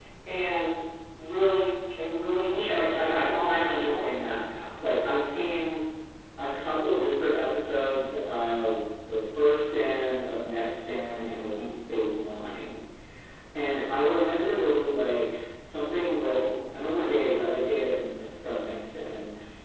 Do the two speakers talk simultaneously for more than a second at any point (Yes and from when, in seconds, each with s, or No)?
Yes, from 2.5 s